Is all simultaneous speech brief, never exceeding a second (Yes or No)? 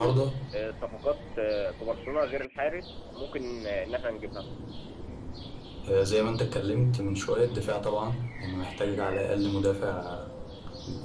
Yes